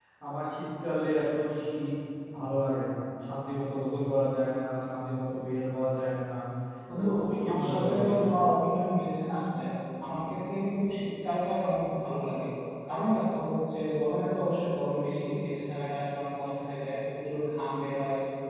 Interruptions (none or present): present